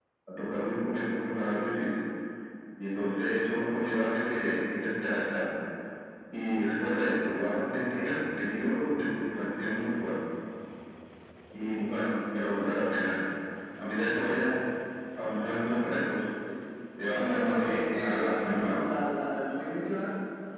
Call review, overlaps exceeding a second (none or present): present